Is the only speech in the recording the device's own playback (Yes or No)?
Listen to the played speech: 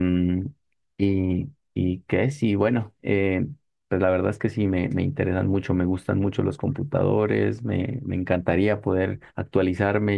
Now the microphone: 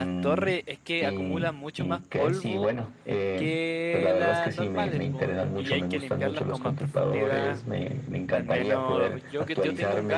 No